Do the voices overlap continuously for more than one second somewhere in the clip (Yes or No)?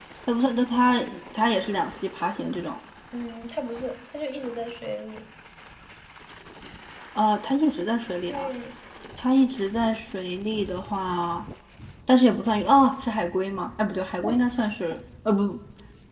No